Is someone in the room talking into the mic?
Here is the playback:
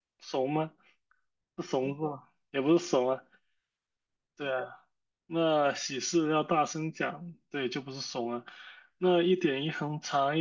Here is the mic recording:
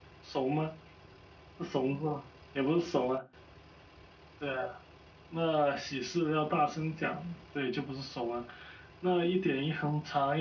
No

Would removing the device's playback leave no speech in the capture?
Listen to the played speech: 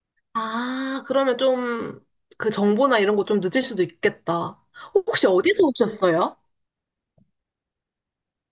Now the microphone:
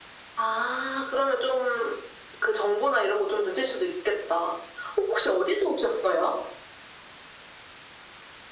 Yes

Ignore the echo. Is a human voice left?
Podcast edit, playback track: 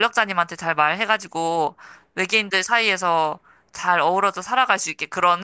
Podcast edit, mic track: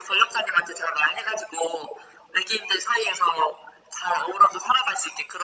No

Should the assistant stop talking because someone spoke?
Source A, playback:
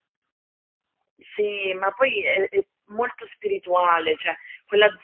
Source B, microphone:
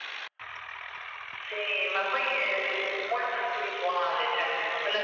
No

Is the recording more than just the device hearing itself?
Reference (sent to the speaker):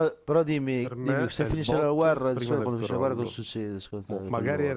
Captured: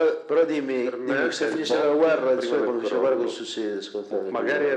No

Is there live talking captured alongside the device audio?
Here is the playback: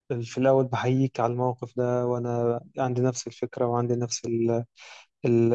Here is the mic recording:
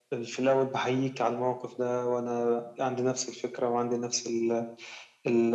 No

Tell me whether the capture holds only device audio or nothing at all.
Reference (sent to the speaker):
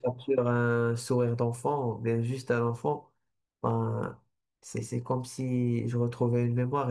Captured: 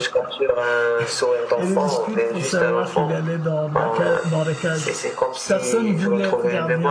No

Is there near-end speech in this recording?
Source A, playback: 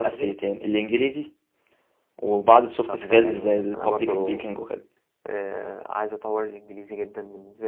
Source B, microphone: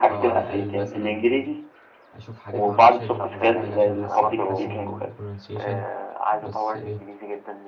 Yes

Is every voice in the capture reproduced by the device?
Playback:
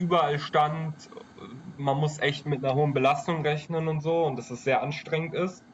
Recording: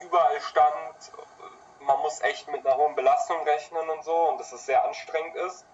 Yes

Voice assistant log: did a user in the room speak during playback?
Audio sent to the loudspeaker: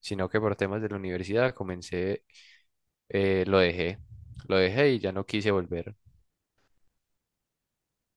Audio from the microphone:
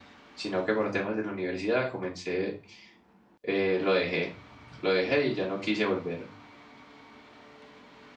No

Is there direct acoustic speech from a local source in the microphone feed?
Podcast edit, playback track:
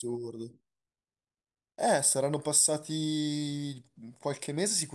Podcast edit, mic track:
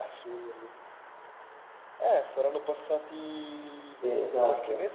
Yes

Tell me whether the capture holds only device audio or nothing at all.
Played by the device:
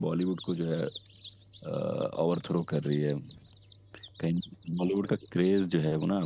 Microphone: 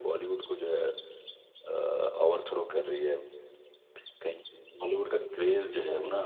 Yes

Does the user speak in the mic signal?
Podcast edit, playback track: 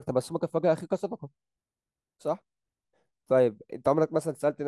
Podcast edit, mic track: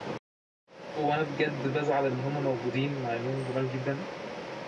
Yes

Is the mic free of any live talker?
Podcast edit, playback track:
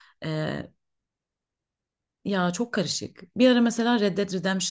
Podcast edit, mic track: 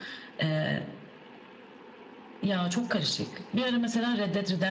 Yes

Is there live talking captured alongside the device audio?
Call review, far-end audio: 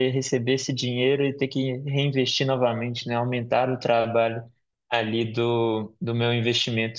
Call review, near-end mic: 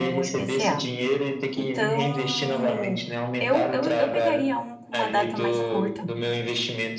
Yes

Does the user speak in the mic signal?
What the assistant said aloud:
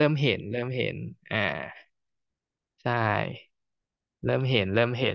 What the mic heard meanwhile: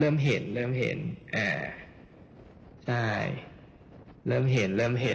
No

